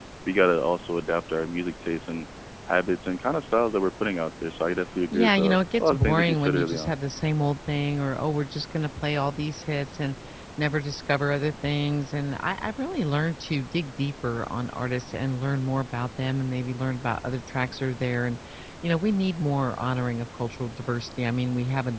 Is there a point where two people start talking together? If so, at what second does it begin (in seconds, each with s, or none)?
5.1 s